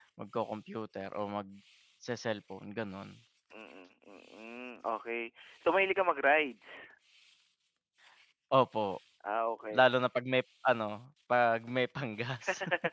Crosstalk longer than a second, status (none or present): none